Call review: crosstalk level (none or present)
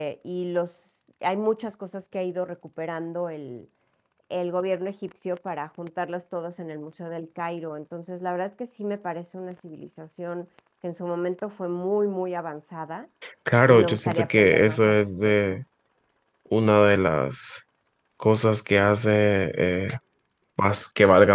present